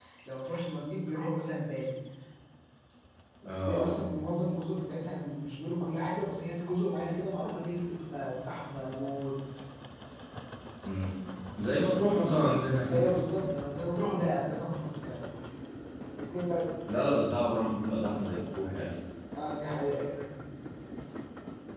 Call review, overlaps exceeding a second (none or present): none